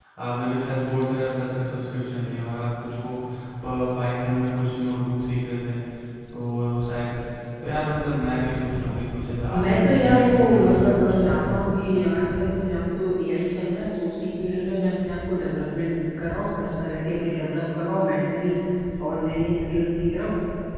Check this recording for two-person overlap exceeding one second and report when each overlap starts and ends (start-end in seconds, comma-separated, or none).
9.5-11.6